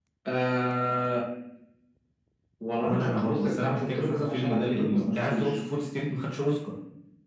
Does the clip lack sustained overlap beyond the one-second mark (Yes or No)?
No